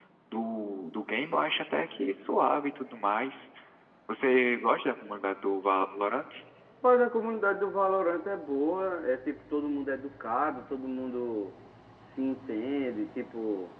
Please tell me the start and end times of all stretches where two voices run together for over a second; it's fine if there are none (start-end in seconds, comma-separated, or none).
none